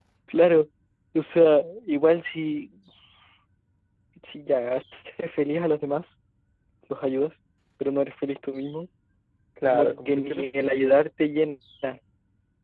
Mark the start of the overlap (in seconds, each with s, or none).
9.7 s